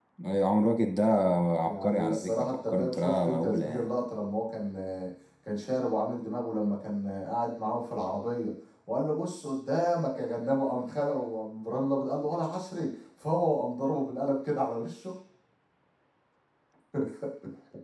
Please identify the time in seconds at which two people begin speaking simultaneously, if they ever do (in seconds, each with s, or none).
1.6 s